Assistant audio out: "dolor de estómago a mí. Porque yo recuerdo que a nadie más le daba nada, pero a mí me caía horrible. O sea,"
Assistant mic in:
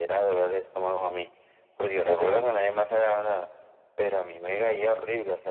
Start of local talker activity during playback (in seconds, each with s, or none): 2.0 s